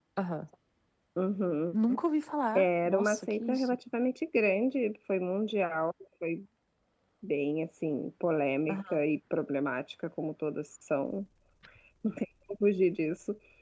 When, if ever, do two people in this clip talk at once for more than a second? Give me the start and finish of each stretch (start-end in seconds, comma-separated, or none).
2.5-3.8